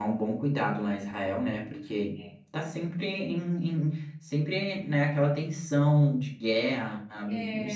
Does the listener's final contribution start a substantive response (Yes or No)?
No